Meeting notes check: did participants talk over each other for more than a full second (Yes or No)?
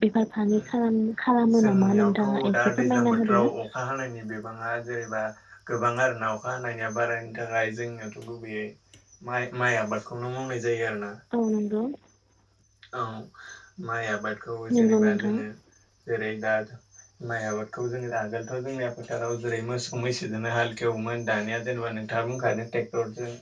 Yes